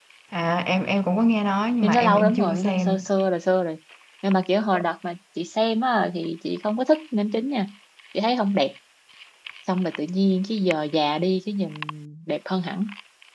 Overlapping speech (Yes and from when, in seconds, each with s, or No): Yes, from 1.8 s